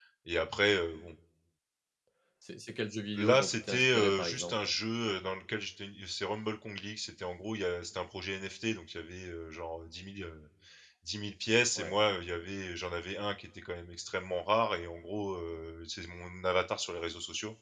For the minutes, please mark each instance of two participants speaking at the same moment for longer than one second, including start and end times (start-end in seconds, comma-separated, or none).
3.1-4.7